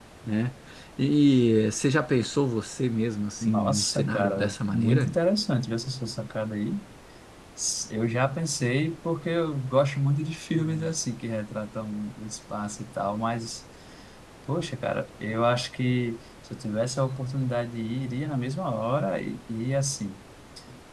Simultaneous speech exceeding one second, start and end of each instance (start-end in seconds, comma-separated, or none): 3.4-5.1